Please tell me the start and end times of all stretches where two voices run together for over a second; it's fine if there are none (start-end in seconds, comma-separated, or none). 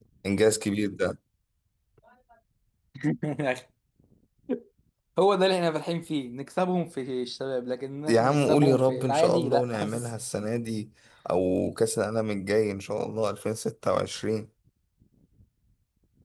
8.1-9.9